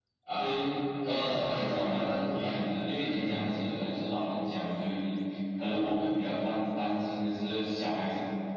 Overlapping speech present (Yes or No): Yes